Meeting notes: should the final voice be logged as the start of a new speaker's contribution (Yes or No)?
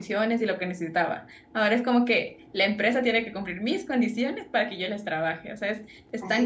Yes